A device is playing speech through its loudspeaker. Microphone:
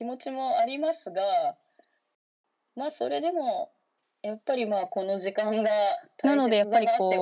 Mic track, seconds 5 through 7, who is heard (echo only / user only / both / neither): both